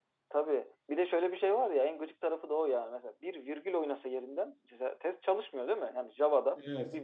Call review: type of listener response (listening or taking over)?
listening